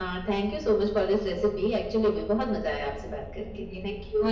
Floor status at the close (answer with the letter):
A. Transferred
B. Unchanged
A